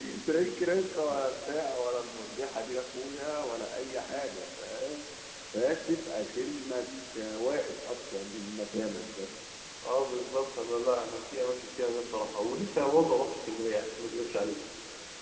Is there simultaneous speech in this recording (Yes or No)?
No